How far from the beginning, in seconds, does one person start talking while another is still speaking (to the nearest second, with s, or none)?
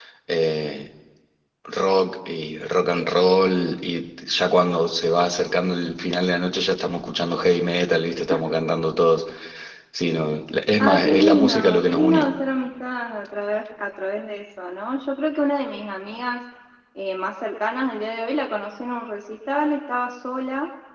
11 s